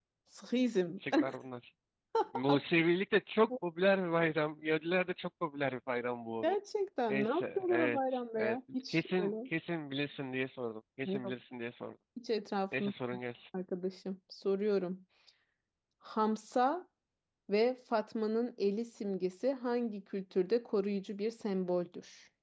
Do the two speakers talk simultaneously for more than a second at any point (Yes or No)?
Yes